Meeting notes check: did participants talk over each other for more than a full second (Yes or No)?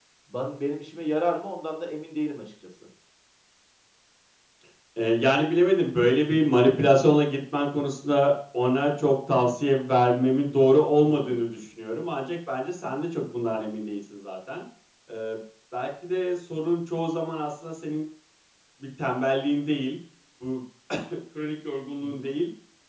No